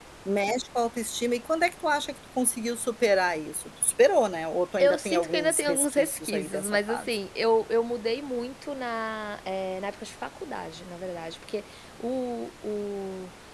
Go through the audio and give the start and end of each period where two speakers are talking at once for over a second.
4.8-7.2

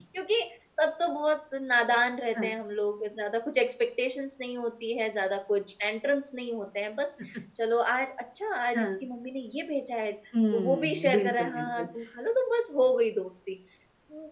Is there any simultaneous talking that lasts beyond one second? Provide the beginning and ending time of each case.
10.5-11.8

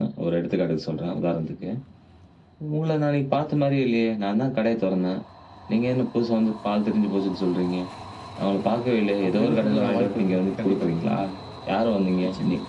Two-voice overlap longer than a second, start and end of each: 9.3-11.2

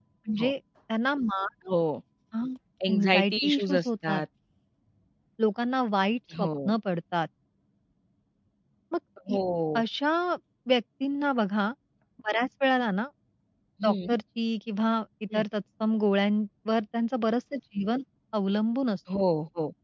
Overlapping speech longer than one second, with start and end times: 2.9-4.2

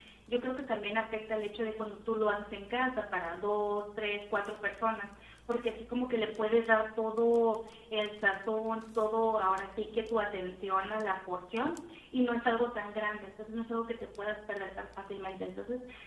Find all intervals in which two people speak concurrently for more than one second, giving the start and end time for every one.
none

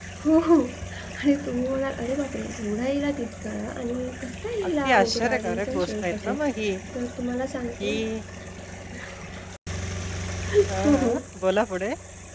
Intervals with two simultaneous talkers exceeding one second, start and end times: 4.7-6.3

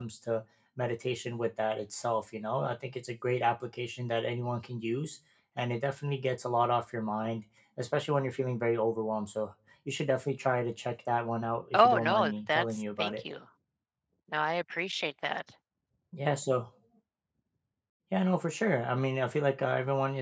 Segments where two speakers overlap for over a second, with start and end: 11.7-13.2

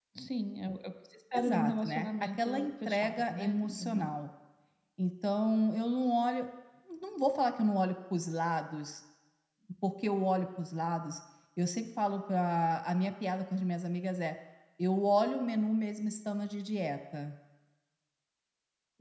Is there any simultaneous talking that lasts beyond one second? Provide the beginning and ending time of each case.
1.3-4.1

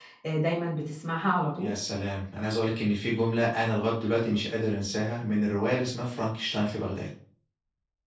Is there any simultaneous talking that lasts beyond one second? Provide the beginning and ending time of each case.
none

